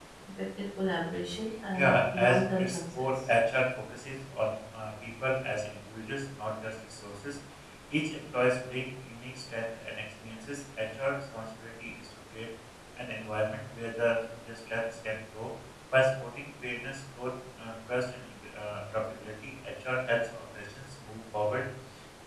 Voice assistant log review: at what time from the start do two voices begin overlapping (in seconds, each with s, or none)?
1.7 s